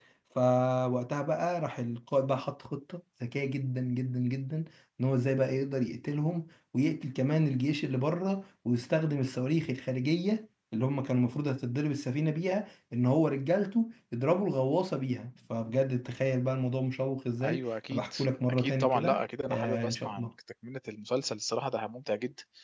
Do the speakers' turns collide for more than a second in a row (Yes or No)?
Yes